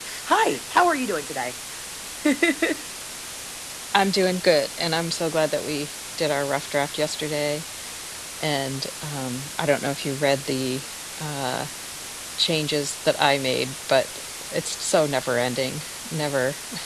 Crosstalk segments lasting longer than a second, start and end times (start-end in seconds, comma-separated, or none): none